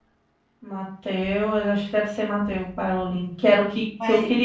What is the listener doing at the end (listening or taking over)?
listening